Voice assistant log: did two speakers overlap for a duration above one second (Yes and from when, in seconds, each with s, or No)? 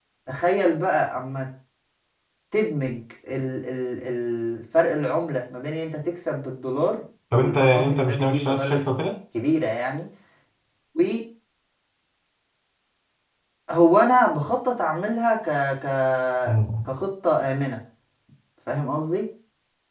Yes, from 7.3 s